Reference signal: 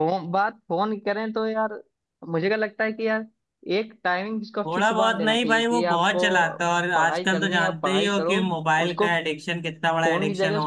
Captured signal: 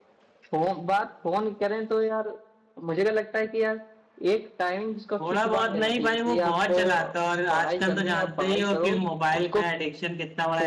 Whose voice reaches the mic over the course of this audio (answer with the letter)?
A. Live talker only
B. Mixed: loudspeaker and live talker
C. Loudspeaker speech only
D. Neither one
C